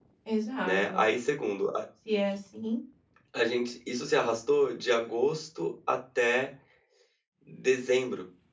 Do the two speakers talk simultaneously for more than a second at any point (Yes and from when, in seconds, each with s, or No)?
No